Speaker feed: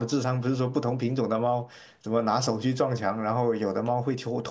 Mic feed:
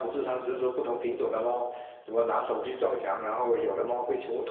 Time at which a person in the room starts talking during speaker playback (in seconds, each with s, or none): none